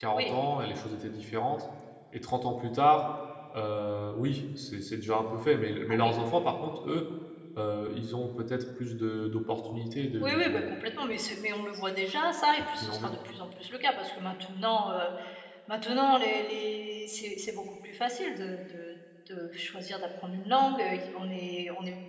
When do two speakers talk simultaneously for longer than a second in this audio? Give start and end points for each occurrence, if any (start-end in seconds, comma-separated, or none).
none